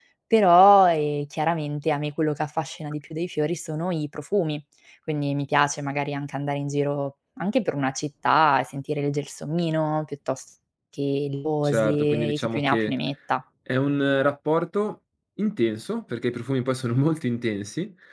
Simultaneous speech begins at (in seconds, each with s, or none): 11.6 s